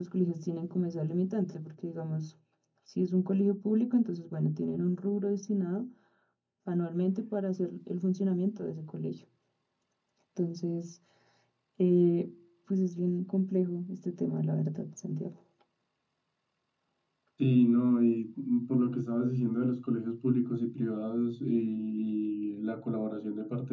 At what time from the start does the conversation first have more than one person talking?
none

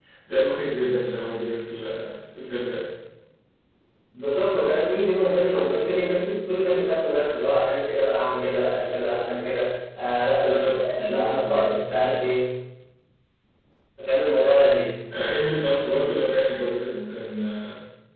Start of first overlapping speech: 10.4 s

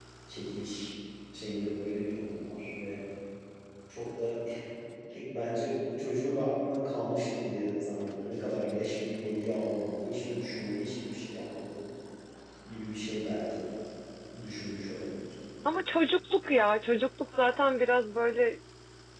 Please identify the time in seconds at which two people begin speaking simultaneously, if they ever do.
none

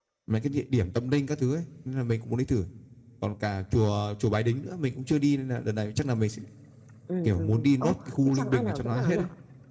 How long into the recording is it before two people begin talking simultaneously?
7.2 s

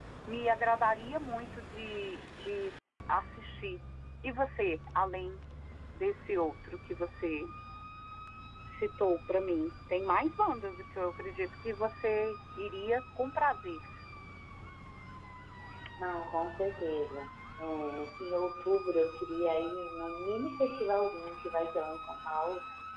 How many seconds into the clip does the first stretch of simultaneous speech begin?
none

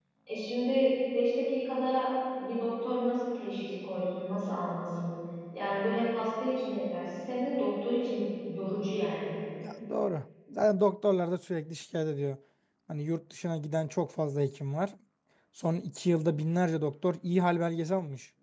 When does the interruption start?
none

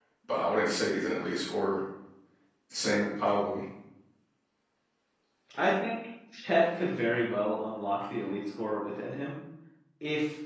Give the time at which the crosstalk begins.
none

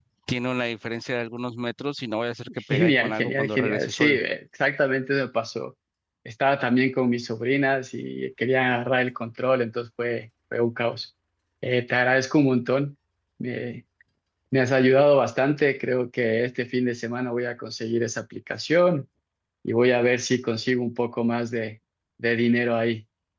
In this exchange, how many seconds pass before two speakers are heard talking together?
2.7 s

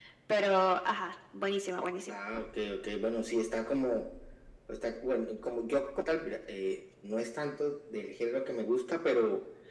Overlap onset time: none

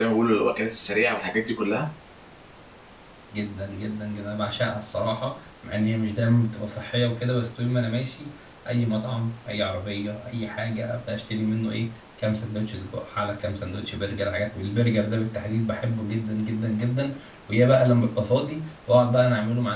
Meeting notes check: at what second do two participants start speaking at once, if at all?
none

